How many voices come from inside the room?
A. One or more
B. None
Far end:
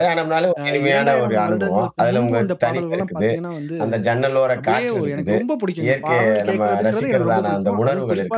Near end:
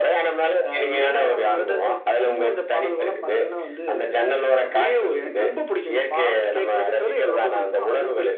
B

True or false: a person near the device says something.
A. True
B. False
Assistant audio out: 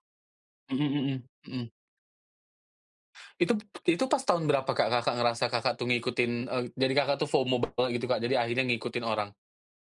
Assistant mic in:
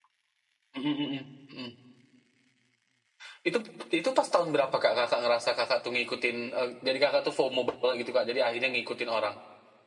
B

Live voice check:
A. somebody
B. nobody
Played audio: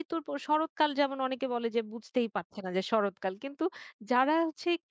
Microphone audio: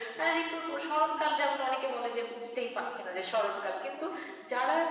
B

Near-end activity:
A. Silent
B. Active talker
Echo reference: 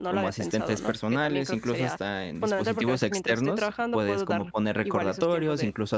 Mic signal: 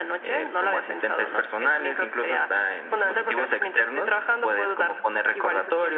B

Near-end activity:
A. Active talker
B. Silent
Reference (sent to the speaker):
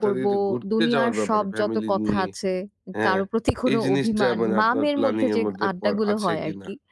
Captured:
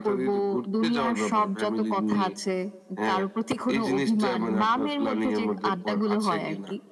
B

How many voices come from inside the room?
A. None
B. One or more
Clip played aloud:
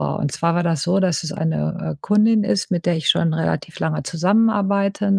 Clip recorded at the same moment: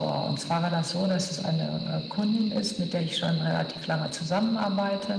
A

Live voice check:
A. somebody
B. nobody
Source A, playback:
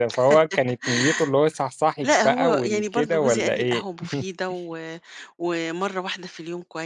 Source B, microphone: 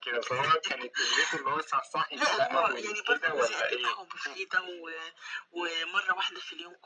B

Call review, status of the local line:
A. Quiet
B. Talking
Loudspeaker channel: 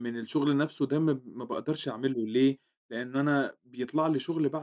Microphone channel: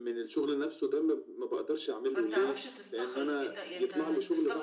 B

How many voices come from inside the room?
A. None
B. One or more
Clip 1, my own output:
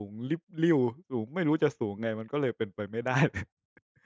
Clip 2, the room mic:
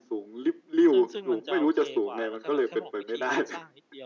B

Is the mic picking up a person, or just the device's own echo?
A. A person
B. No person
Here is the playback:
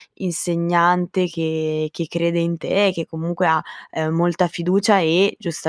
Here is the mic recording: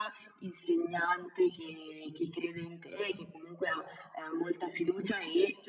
B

